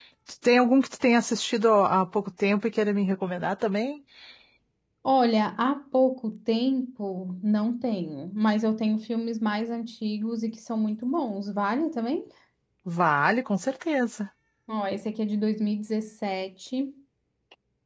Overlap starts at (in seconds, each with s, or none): none